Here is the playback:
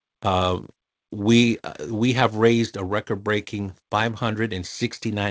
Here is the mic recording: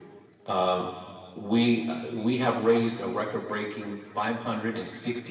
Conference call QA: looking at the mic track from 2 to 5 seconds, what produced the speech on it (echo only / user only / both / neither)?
echo only